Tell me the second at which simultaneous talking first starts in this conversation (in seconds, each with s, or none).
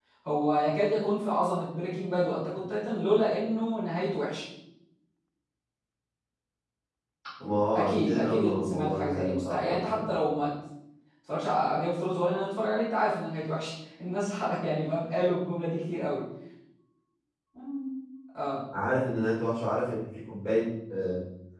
7.8 s